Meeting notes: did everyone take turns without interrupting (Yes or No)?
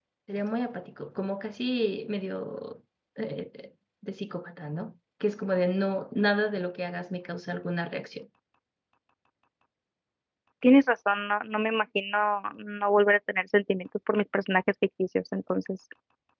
Yes